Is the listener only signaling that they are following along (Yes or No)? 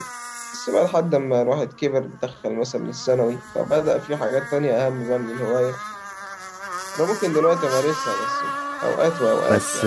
No